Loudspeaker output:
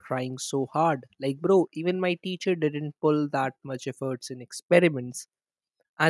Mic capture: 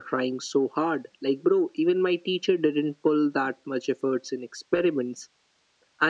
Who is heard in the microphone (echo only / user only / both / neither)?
echo only